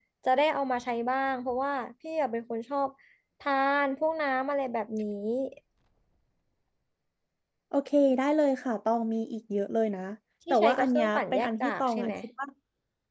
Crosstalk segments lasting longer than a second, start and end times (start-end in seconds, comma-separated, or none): 10.5-12.1